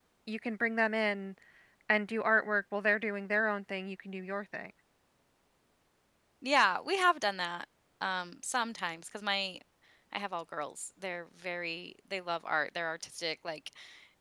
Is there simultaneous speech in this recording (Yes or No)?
No